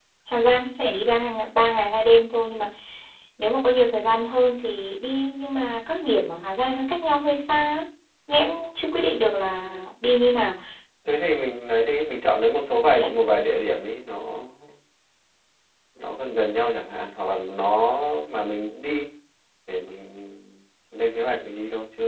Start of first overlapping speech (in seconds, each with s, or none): none